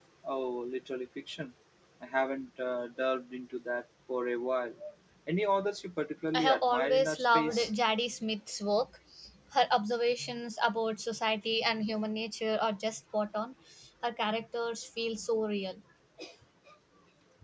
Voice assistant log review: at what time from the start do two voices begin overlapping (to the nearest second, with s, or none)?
6 s